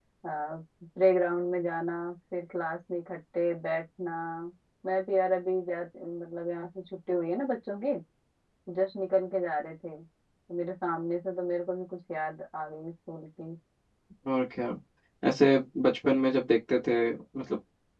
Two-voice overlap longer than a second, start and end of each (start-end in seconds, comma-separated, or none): none